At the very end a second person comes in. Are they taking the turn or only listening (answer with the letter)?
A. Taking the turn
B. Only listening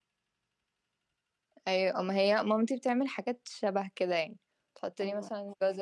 B